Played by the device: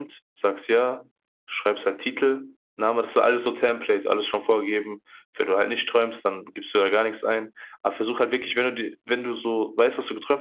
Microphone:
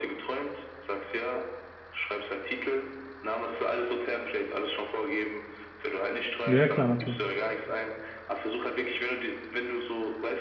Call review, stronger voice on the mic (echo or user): user